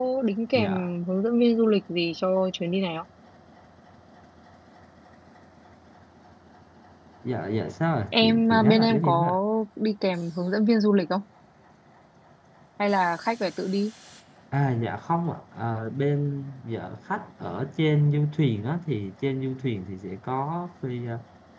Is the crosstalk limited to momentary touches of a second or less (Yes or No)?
No